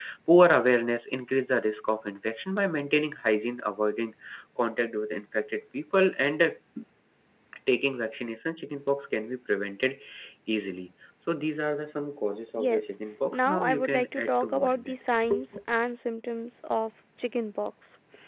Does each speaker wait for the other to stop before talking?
No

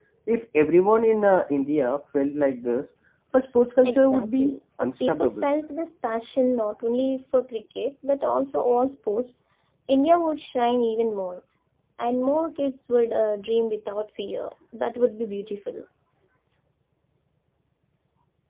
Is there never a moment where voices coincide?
No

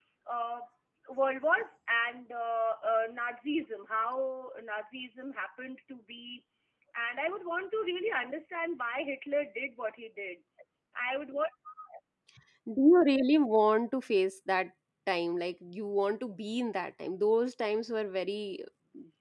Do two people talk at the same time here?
No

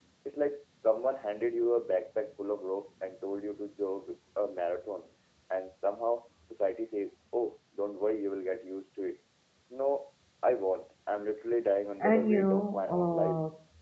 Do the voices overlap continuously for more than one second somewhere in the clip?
Yes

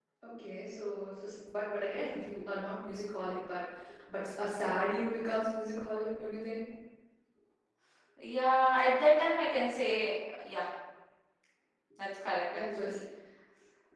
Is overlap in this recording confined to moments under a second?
Yes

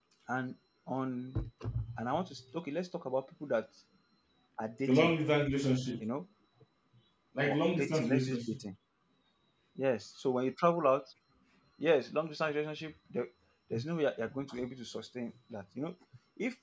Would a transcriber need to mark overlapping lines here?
Yes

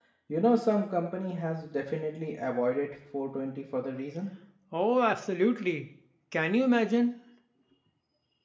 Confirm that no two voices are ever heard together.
Yes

